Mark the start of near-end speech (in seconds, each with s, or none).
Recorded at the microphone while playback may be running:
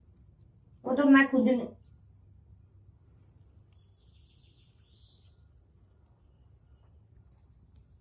0.8 s